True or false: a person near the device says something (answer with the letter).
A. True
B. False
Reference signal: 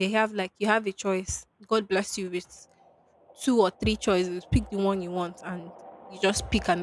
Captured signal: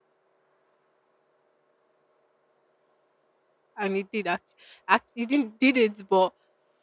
A